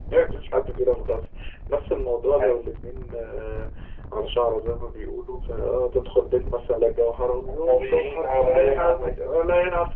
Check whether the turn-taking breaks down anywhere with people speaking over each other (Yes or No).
Yes